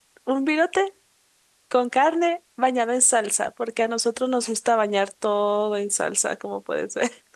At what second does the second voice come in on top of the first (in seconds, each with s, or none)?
none